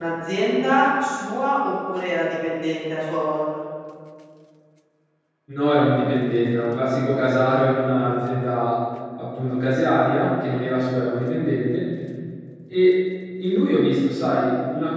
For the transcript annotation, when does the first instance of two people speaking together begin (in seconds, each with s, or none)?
none